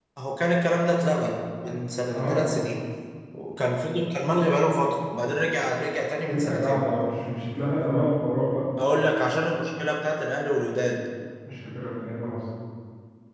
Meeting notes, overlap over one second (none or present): none